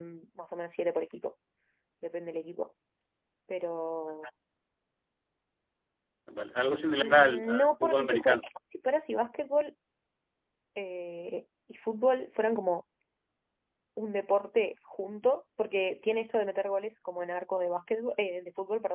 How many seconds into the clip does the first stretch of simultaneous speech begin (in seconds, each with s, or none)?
7.0 s